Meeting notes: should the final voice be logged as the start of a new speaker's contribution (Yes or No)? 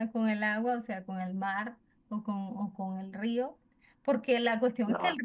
No